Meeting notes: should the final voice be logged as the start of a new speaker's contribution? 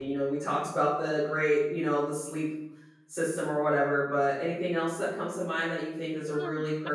Yes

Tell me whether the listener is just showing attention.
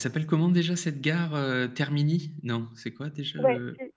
No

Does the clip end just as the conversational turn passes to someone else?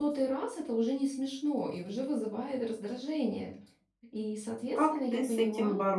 Yes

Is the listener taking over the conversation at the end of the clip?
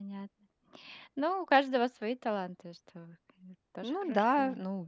Yes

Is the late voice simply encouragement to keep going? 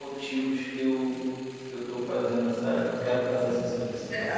No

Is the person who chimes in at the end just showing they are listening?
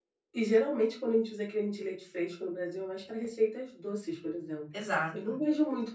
Yes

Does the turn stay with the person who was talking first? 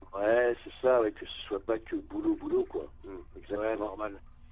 No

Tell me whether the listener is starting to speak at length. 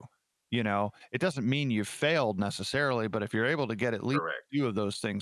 No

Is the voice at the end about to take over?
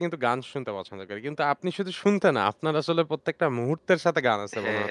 Yes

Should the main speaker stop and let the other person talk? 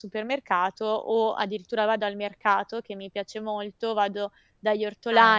No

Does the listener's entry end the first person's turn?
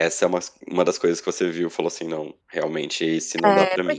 Yes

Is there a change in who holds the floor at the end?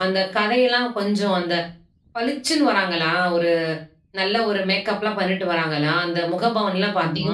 No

